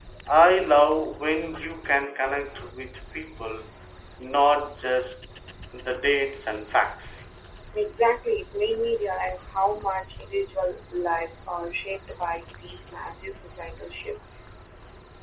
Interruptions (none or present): none